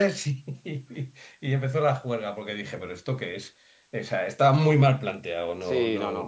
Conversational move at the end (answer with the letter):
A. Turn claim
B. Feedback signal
A